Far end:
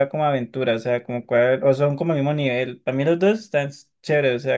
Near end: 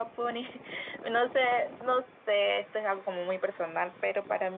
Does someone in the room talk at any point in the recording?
Yes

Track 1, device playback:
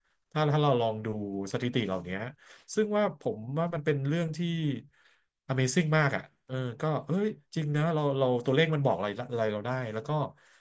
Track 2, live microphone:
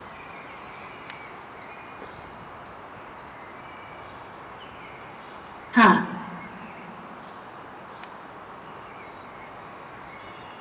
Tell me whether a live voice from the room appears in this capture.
Yes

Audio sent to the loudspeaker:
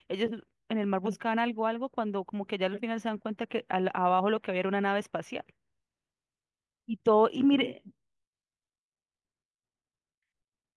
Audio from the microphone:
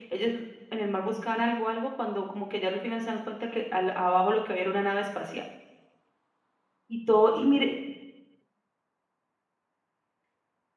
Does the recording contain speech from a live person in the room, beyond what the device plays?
No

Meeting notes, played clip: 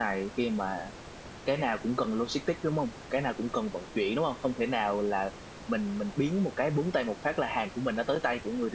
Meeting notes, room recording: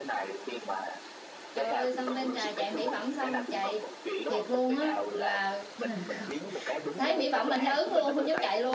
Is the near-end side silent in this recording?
No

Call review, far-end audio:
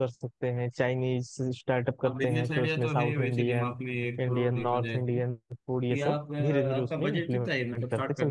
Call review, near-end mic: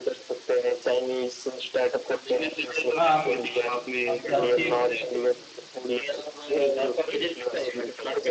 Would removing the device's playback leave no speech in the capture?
No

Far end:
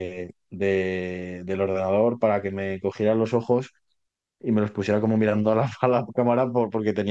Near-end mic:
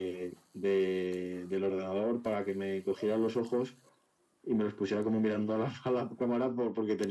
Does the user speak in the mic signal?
No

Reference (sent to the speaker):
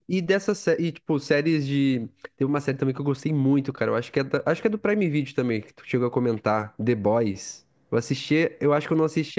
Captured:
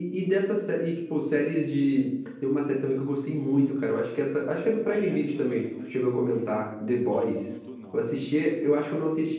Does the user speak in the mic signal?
Yes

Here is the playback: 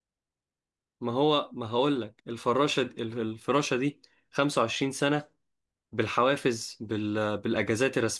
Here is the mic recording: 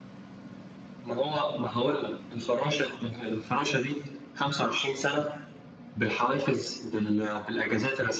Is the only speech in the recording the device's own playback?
Yes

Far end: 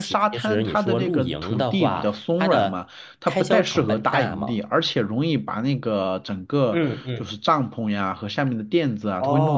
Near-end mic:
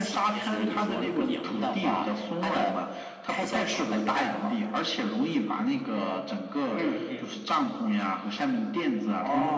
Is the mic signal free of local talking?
Yes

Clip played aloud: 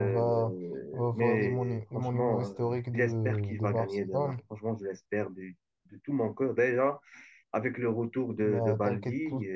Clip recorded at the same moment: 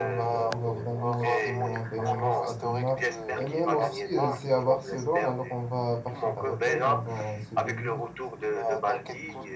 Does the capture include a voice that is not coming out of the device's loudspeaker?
Yes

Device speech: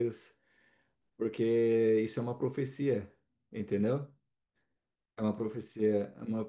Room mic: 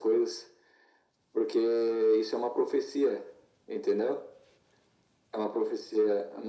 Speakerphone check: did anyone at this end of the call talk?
No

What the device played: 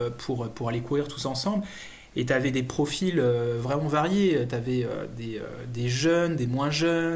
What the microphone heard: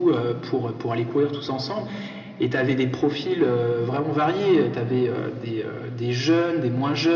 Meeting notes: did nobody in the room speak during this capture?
Yes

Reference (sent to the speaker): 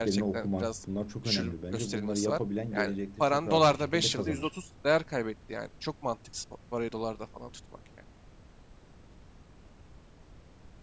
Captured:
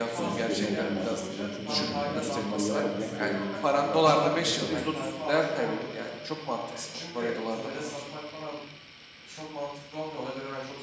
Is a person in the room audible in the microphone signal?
Yes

